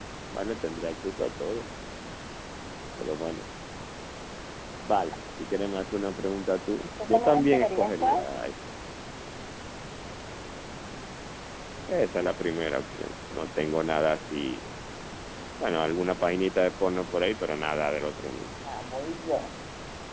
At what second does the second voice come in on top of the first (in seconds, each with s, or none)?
7.0 s